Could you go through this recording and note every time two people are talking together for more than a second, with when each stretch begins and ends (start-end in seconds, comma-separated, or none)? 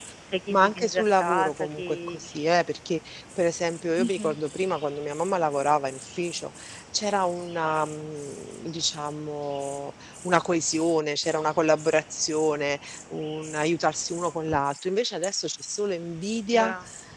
0.5-2.4